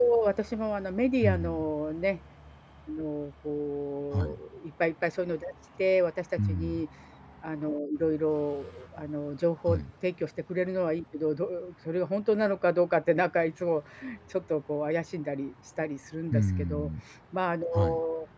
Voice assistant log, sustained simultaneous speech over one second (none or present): none